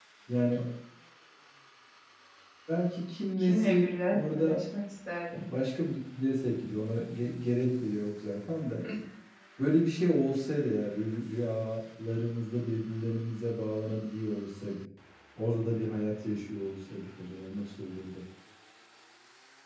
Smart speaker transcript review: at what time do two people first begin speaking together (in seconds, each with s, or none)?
3.4 s